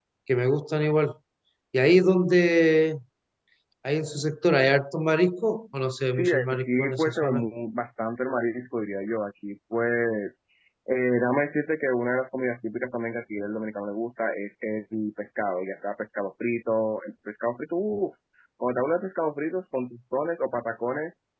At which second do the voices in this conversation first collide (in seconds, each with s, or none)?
6.1 s